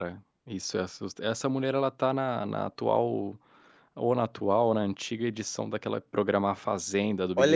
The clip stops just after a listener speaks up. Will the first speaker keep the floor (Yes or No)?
No